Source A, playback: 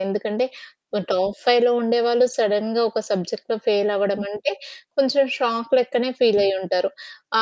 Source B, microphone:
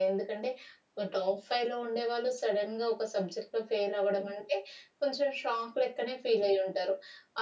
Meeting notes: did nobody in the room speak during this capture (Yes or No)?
Yes